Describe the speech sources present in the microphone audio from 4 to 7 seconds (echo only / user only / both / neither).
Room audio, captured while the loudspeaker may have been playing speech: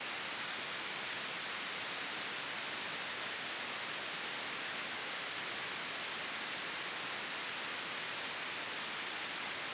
neither